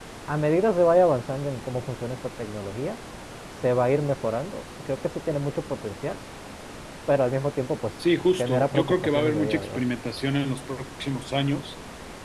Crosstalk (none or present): present